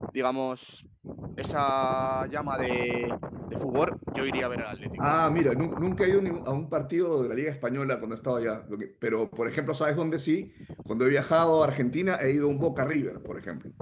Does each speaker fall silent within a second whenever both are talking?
Yes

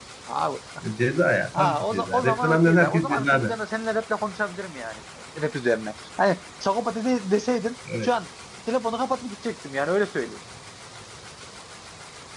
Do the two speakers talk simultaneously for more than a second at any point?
Yes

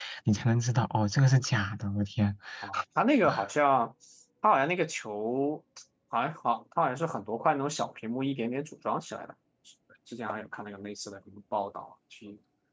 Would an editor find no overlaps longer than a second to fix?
Yes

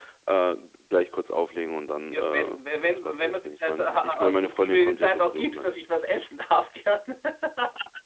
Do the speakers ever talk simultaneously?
Yes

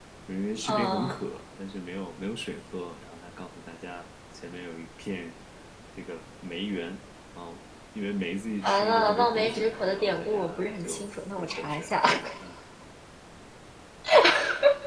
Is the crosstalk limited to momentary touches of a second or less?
No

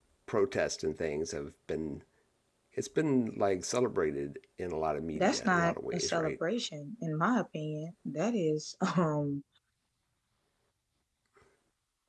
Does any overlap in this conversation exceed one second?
Yes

